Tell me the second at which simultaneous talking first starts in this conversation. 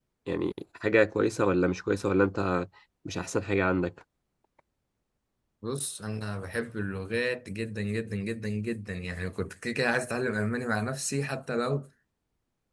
none

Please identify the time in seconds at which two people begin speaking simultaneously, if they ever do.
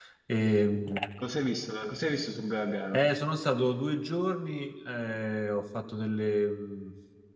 none

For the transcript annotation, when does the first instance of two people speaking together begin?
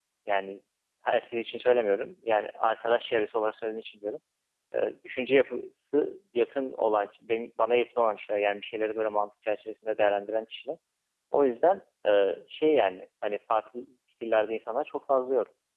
none

